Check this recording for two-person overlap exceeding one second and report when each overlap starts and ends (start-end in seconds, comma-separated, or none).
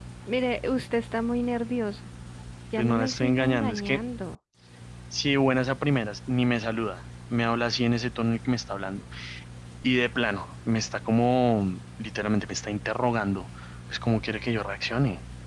2.8-4.0